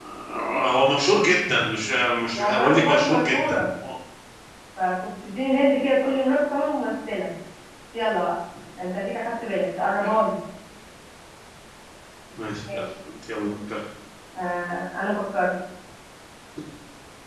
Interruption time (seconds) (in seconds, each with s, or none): 2.3 s